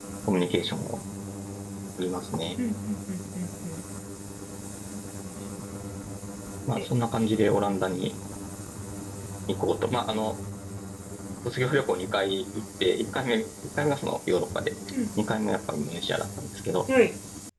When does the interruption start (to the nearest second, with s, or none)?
none